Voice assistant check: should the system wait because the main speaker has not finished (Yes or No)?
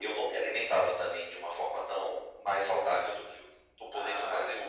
No